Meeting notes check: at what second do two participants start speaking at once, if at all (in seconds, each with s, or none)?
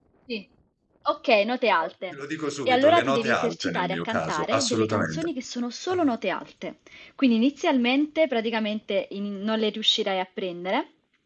2.7 s